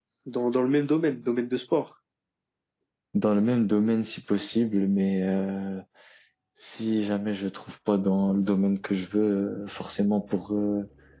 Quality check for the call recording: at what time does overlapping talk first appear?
none

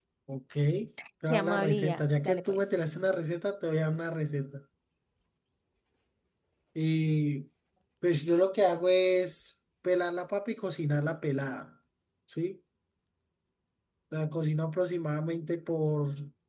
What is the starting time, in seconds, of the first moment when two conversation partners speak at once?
1.3 s

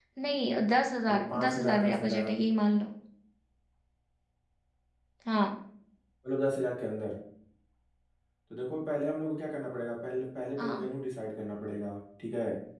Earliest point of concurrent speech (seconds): 1.1 s

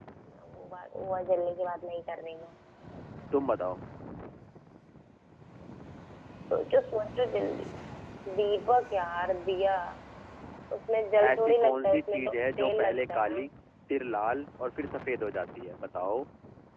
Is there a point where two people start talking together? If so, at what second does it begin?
11.3 s

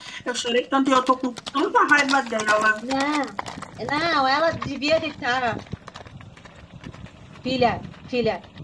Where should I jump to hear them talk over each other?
none

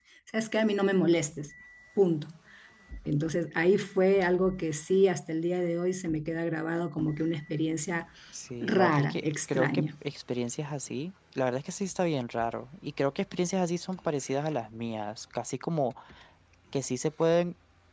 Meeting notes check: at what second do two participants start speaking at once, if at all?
8.6 s

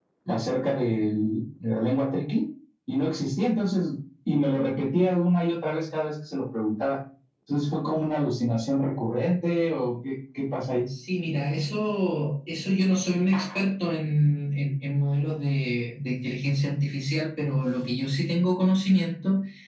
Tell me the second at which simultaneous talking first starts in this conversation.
none

